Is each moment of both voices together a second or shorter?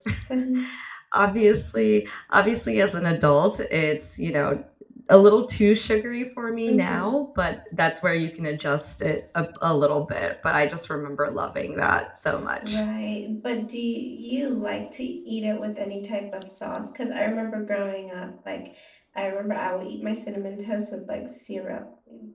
Yes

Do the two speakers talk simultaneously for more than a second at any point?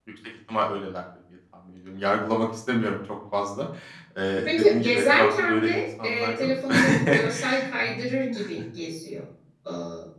Yes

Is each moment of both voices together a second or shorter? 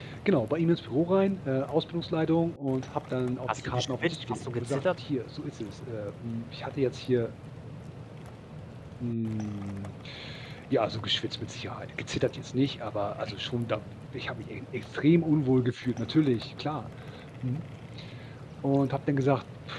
No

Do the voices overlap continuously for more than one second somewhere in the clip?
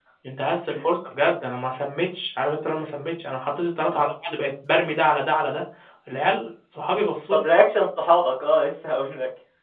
No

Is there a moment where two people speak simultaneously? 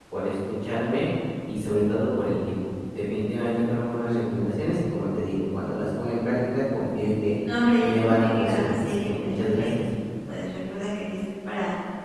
Yes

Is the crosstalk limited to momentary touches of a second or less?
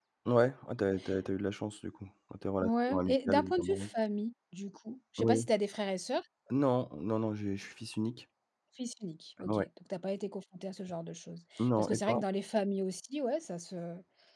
No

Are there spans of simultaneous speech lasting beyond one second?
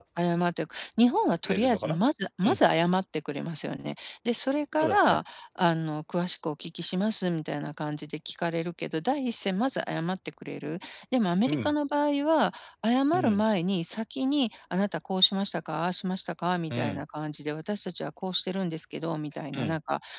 No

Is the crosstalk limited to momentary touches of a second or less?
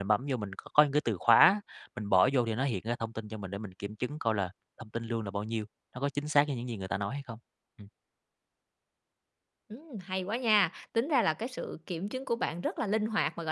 Yes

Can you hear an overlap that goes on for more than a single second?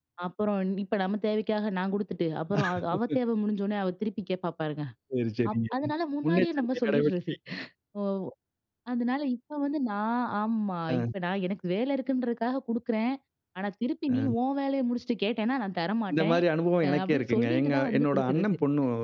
Yes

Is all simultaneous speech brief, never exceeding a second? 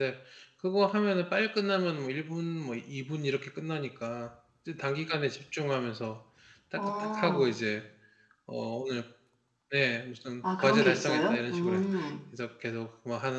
No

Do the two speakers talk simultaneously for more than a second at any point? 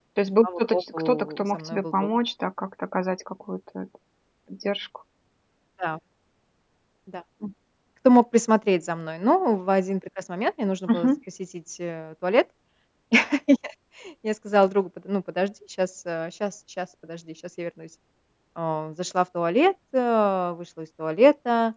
Yes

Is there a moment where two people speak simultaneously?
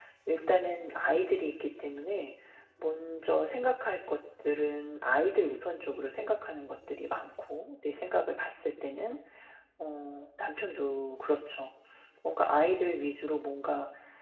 No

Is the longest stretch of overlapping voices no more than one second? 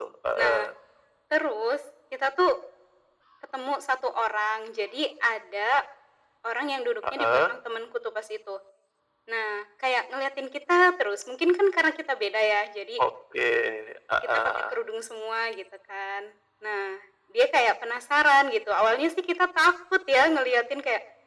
Yes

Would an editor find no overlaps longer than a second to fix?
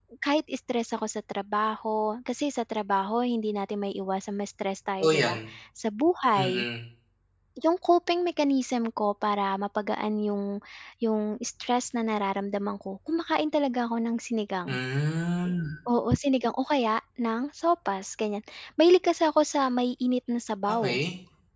Yes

